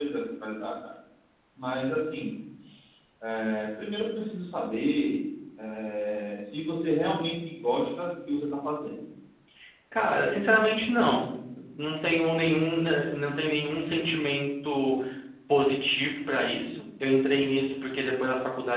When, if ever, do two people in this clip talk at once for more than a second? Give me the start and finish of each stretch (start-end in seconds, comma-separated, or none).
none